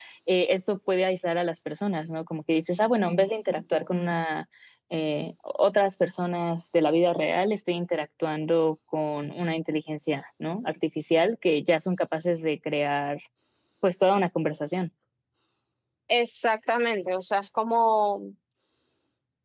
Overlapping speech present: No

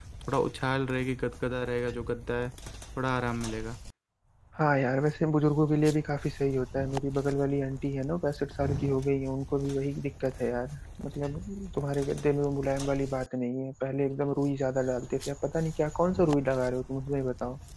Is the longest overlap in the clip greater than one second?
No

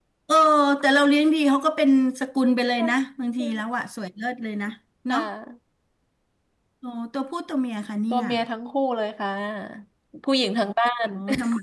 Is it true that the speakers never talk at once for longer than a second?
Yes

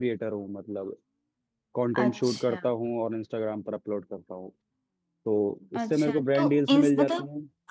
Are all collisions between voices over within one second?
No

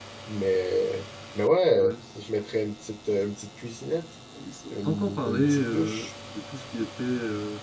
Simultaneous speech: Yes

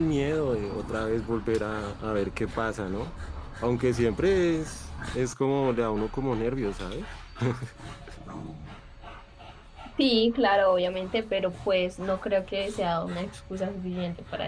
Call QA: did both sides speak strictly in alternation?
Yes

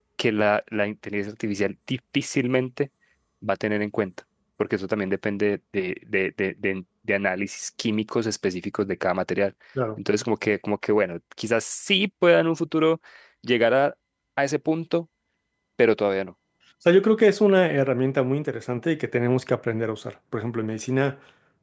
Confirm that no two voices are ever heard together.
Yes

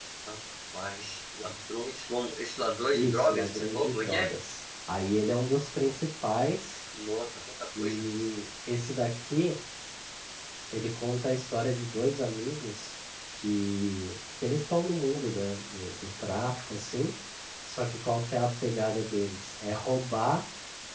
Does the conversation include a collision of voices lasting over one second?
Yes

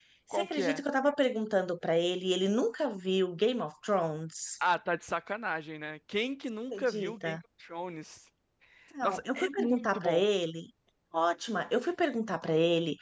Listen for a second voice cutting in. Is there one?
Yes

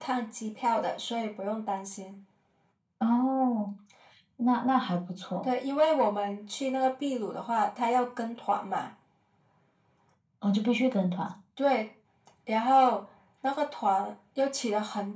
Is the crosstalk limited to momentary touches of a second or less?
Yes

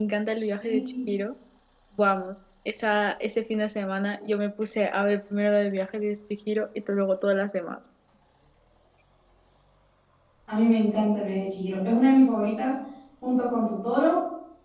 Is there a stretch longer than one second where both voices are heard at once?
No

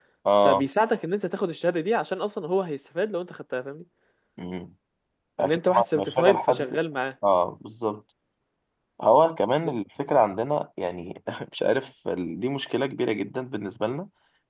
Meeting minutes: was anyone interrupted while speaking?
Yes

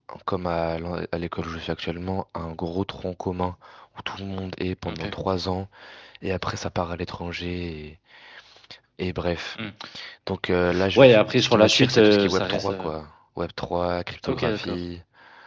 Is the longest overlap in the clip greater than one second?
Yes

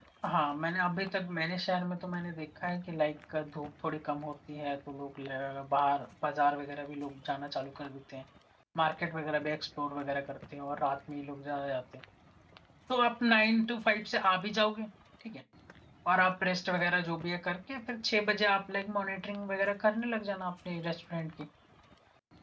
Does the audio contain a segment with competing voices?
No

